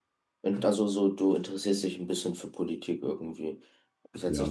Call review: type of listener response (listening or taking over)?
listening